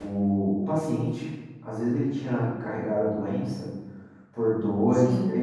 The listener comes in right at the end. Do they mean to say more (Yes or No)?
No